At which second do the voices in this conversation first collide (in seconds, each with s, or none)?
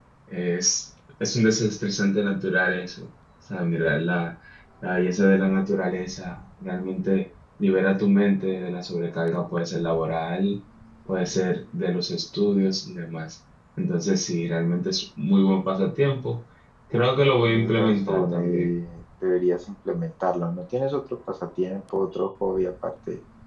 17.4 s